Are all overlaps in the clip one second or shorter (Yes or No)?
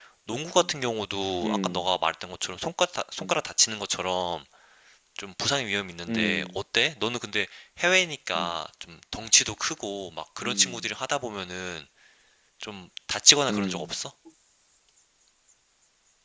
Yes